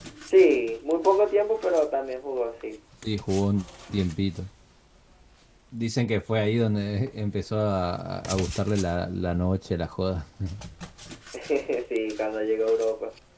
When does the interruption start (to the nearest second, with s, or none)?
none